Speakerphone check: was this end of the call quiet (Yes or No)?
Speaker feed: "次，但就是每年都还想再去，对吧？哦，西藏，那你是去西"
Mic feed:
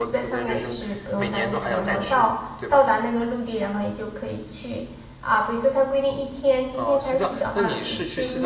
No